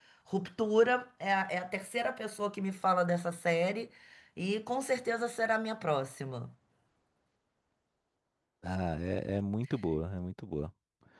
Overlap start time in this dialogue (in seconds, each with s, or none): none